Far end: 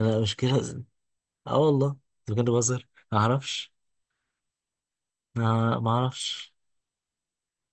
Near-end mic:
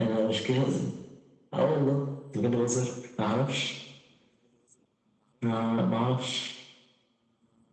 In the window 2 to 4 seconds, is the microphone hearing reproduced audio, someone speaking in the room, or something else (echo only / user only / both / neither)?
echo only